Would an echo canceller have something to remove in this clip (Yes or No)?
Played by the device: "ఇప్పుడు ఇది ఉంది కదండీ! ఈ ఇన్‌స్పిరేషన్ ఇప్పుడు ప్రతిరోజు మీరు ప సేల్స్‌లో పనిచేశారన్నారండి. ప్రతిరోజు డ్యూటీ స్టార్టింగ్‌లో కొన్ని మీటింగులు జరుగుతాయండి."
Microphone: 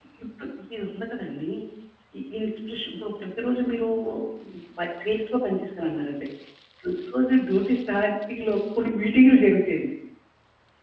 Yes